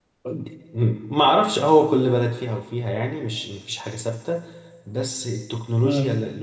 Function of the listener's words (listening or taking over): listening